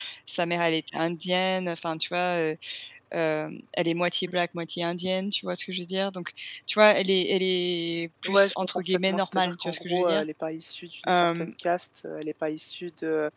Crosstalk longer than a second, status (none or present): present